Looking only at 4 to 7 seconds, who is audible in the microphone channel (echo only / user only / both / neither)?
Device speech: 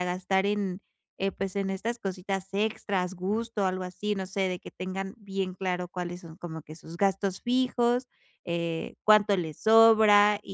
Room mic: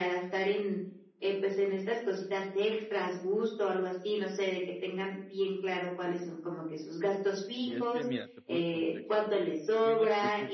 echo only